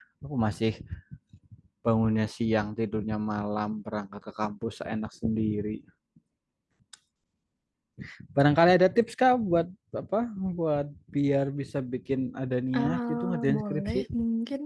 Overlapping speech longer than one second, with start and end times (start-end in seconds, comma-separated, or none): 12.8-14.1